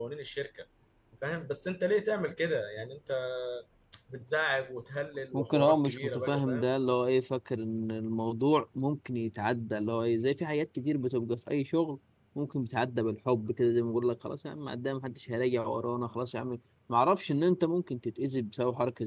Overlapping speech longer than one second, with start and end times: 5.3-6.6

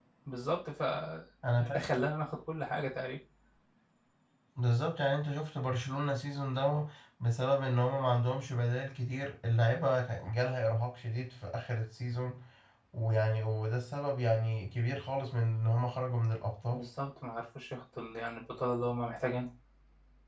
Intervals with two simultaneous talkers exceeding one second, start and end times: none

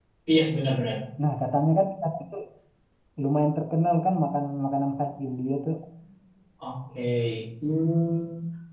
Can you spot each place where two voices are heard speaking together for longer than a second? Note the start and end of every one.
none

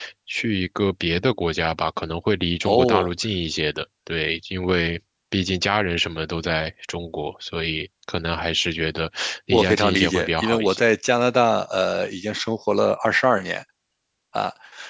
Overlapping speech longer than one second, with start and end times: 9.5-10.8

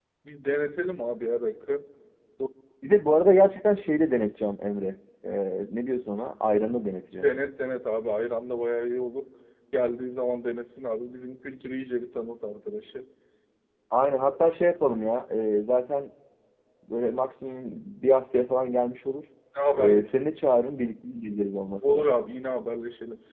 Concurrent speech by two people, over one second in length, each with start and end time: none

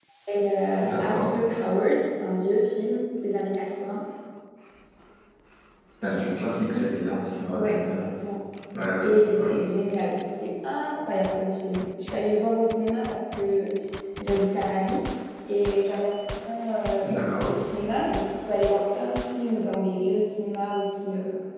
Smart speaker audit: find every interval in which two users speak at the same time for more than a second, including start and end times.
none

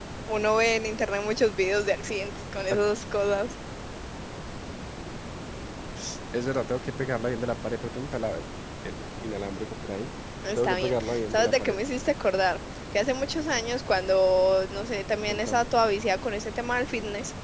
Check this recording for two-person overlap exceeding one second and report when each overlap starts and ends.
10.6-11.8

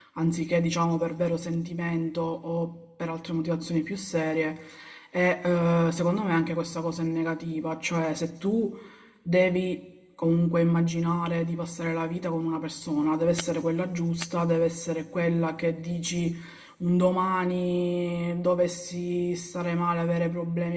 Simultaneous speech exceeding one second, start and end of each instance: none

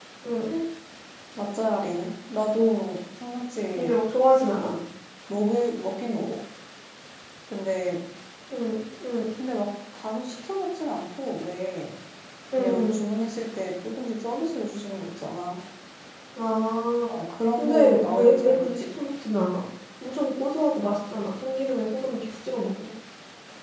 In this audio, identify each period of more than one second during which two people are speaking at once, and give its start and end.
17.6-18.8

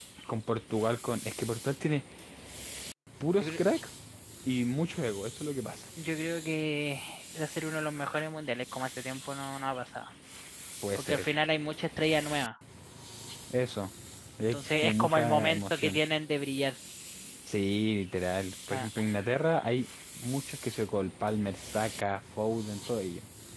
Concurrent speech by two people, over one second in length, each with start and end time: 14.5-16.0

